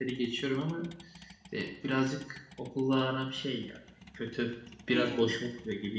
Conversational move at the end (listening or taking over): listening